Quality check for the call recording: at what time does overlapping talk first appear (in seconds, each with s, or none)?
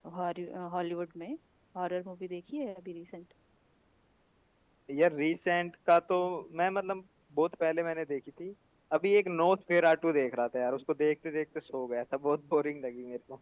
none